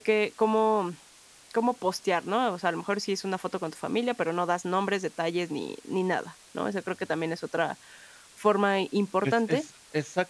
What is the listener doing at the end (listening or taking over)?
taking over